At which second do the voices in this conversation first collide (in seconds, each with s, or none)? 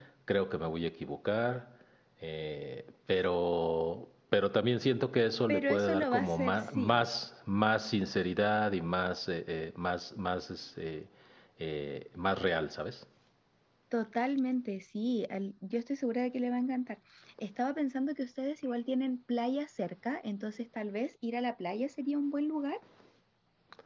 5.5 s